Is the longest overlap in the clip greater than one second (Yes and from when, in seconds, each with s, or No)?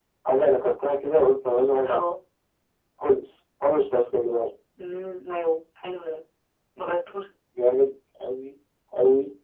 No